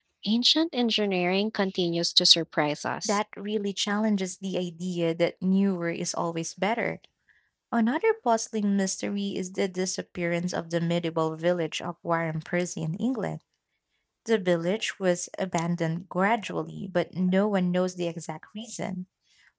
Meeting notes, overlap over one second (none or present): none